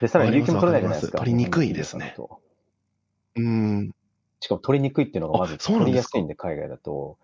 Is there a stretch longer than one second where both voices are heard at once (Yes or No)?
Yes